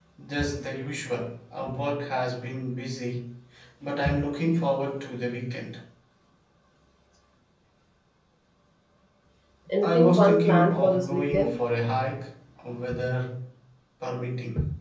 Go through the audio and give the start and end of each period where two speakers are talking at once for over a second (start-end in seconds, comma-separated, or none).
9.8-11.5